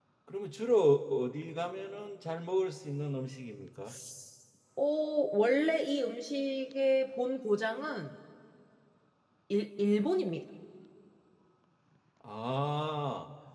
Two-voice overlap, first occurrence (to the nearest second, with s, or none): none